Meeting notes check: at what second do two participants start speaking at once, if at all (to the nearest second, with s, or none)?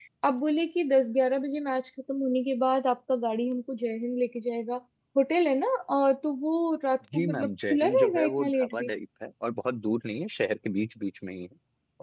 7 s